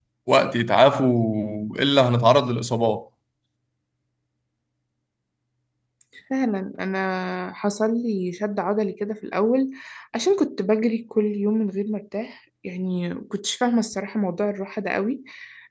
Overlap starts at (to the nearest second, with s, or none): none